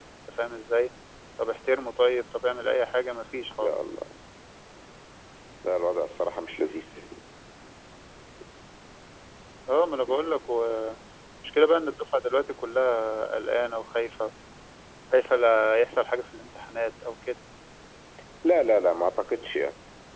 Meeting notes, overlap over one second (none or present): none